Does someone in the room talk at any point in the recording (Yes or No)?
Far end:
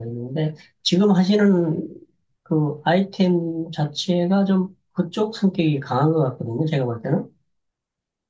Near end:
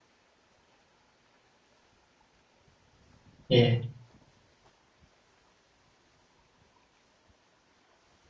Yes